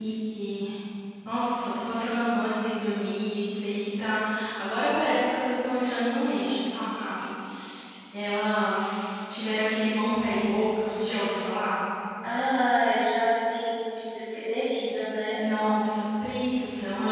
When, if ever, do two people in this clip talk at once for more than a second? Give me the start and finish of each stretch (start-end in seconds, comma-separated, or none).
none